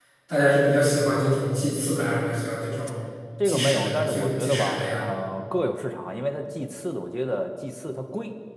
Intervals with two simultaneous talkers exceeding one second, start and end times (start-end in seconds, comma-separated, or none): 3.4-5.0